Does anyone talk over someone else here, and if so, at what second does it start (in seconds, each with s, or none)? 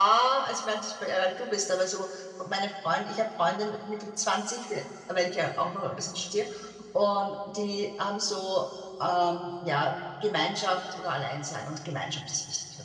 none